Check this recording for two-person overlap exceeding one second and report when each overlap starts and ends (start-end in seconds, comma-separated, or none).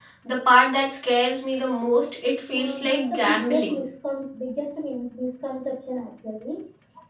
2.6-3.8